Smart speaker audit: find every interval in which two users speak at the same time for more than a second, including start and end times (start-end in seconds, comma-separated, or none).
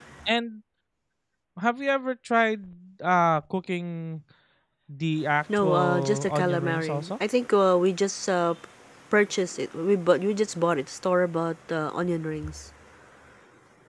5.6-7.1